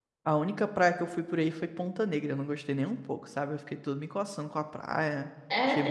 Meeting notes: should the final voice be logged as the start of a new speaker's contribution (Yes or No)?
Yes